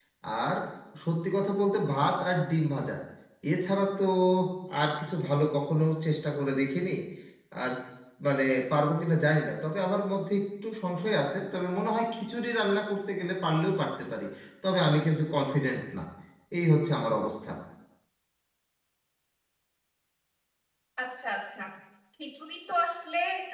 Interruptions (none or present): none